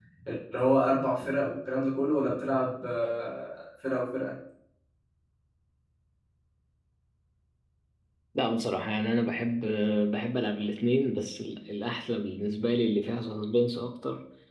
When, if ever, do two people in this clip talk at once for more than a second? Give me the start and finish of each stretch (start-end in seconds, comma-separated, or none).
none